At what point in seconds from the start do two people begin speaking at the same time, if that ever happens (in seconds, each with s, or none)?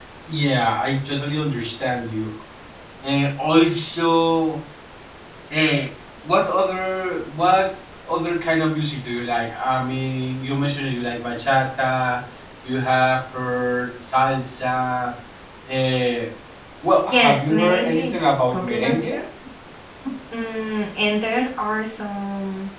17.1 s